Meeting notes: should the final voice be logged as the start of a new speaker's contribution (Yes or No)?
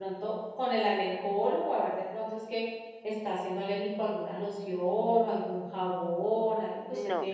Yes